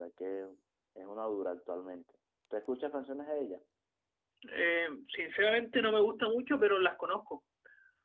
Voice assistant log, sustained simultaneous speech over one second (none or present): none